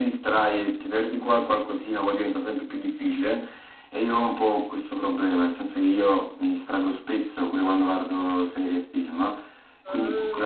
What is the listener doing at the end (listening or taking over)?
listening